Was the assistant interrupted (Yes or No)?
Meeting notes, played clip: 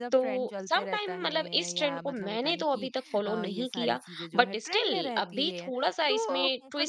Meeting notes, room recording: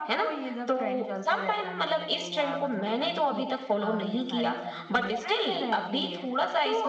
No